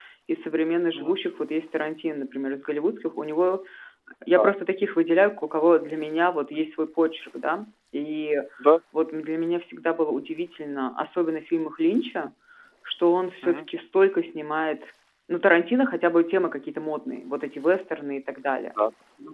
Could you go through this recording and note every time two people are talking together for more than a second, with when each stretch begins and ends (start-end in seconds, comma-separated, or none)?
none